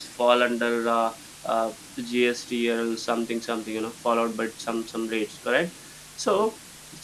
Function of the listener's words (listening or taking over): listening